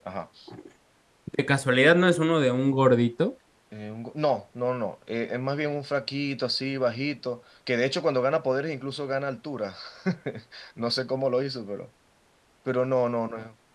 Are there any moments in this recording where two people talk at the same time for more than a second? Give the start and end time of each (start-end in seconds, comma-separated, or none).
none